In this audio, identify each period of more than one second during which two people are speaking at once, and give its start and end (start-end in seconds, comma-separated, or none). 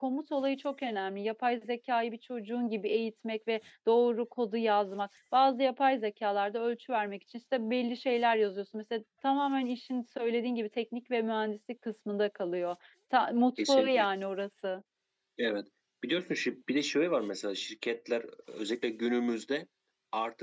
none